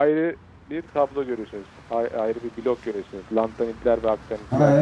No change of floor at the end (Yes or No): No